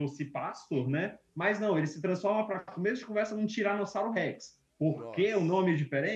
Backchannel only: Yes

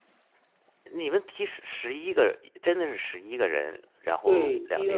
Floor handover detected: Yes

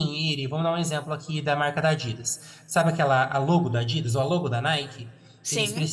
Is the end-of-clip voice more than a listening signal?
No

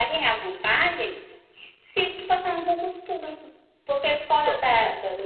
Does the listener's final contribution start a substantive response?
No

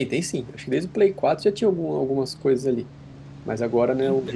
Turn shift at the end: No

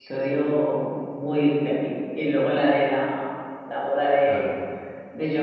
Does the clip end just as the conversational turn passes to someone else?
No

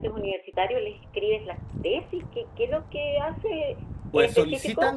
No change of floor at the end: No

